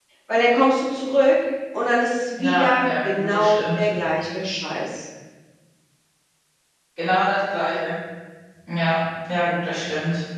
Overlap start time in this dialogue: 2 s

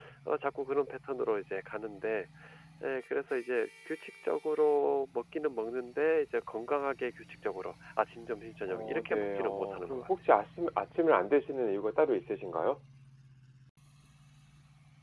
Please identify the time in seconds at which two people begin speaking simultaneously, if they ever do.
9 s

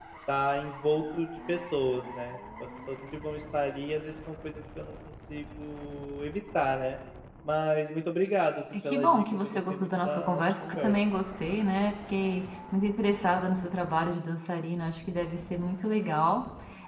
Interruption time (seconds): 9 s

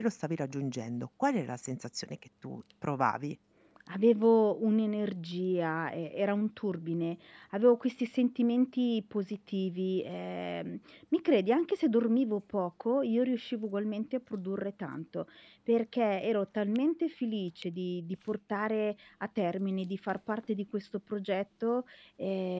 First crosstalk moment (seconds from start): none

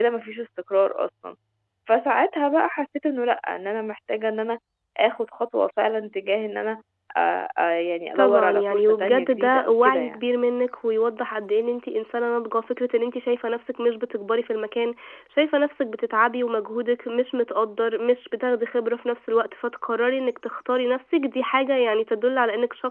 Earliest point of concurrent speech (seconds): 8 s

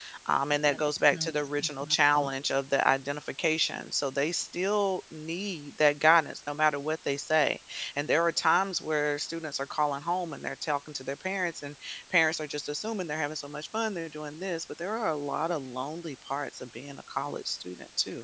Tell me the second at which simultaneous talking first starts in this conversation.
1 s

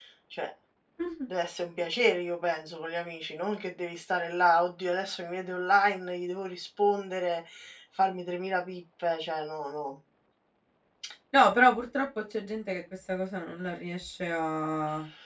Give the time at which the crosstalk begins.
none

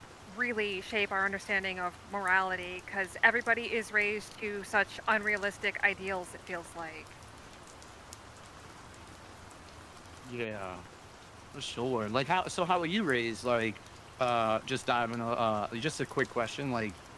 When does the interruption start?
none

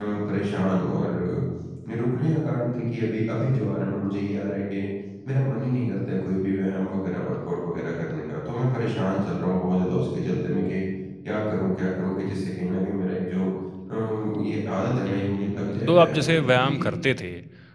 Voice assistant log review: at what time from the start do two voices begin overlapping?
15 s

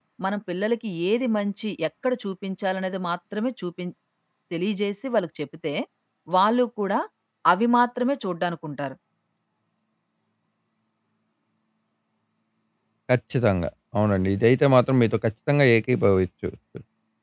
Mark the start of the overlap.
none

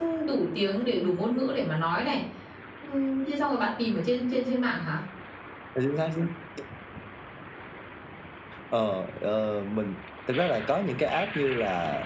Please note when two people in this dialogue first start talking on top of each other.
none

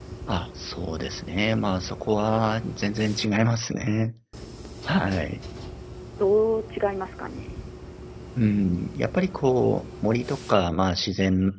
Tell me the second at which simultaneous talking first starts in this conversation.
none

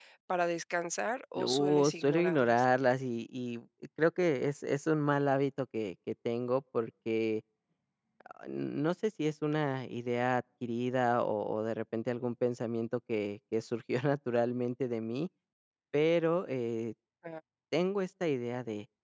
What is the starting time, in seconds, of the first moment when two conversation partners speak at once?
1 s

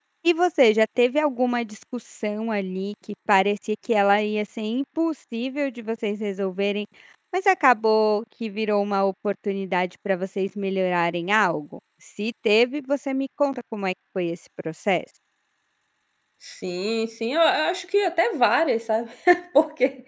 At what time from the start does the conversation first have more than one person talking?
none

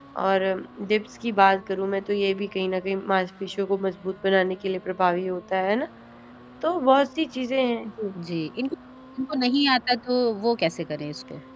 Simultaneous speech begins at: none

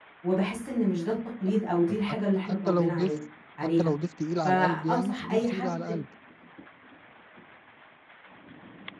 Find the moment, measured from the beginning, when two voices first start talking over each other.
2 s

